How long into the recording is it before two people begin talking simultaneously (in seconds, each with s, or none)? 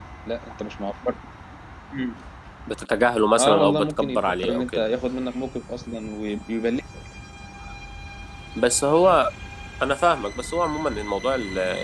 3.4 s